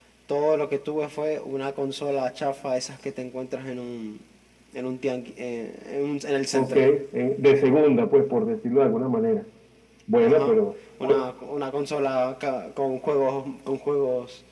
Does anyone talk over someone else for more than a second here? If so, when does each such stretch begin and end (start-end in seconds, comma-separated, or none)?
none